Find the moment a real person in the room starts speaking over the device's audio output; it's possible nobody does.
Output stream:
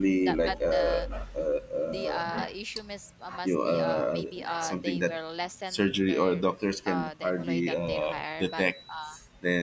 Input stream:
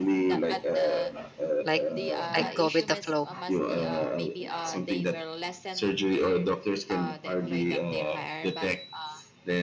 2 s

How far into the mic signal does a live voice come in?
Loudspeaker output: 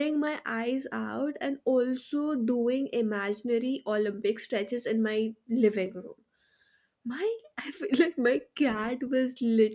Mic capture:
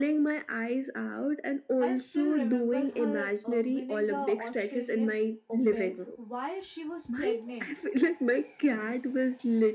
2 s

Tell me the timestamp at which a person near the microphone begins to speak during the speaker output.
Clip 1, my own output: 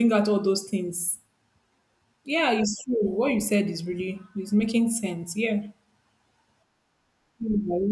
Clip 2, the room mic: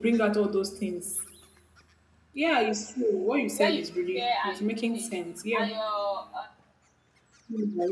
4 s

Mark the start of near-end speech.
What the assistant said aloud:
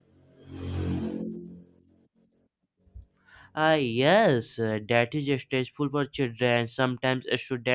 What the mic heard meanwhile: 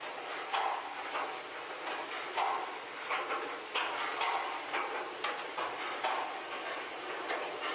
none

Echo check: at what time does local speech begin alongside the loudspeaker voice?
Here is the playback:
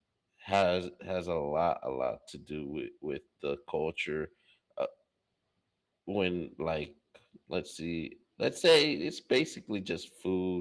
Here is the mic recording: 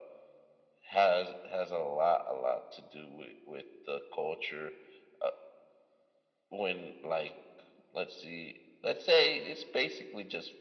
none

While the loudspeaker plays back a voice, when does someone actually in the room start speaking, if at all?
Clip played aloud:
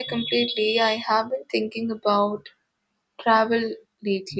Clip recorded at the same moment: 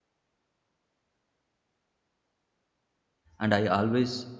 3 s

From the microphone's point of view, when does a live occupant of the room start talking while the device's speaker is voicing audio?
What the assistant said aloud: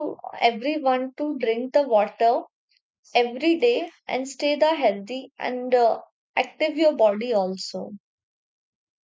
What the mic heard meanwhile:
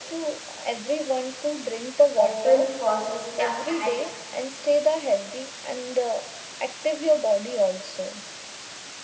2 s

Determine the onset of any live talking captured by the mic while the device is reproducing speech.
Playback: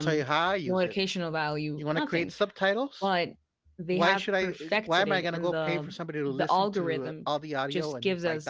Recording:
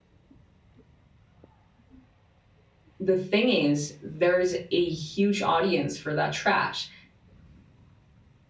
3 s

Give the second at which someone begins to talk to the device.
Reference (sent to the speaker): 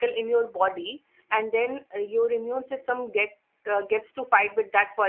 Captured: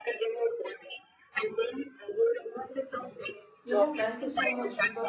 4 s

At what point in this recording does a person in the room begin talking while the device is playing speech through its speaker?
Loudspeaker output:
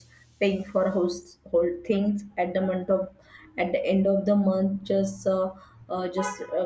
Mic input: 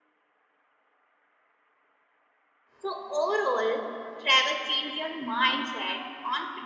3 s

